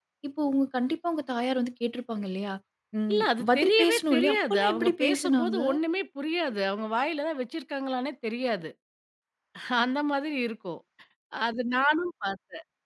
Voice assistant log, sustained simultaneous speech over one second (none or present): present